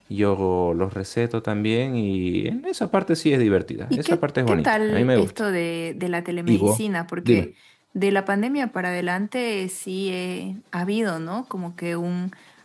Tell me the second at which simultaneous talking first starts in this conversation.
3.9 s

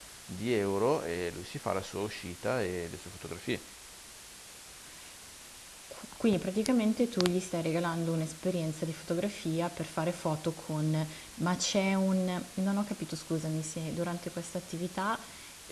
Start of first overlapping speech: none

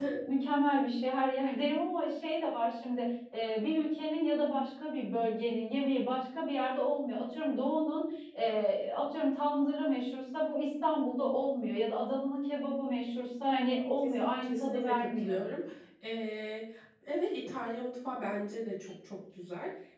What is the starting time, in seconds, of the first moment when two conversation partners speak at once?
14.0 s

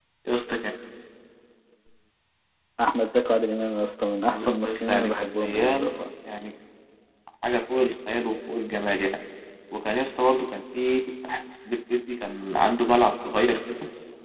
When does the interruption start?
4.3 s

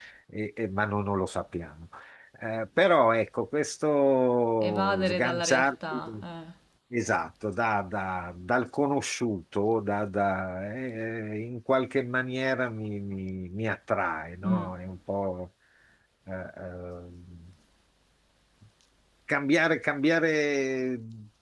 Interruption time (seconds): 4.6 s

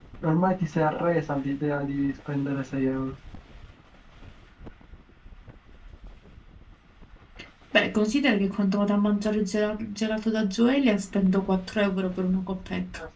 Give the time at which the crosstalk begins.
none

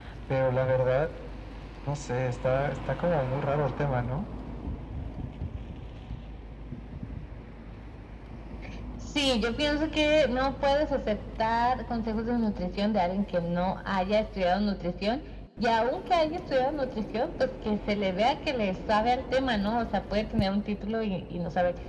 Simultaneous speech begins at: none

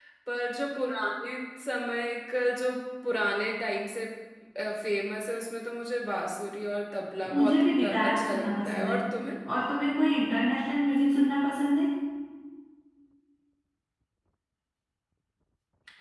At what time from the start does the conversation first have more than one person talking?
7.2 s

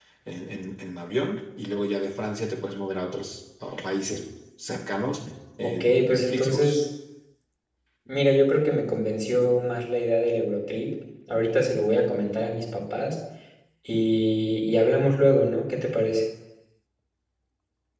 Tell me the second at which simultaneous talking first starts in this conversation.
5.6 s

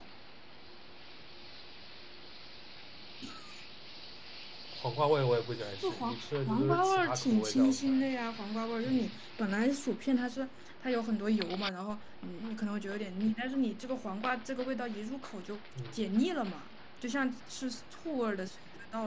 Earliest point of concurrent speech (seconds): 5.8 s

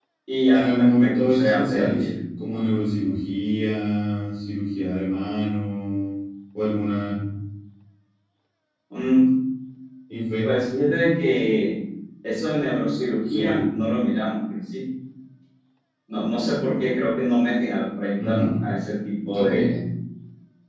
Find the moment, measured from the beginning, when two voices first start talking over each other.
0.5 s

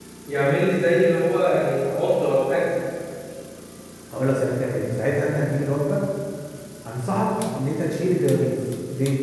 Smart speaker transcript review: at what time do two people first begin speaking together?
none

